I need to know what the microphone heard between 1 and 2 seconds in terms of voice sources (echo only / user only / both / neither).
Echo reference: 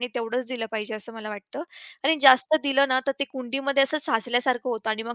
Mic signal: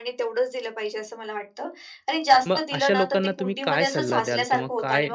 echo only